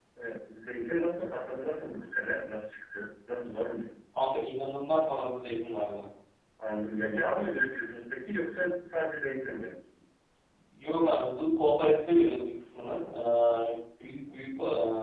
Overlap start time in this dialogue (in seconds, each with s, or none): none